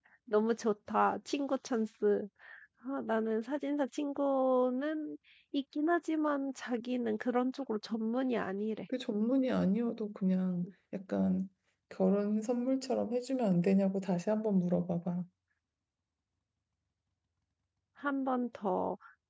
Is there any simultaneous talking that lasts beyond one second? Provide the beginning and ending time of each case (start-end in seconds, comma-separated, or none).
none